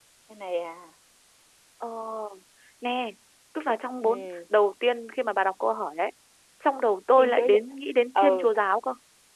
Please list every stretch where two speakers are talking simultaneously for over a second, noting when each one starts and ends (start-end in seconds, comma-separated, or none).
none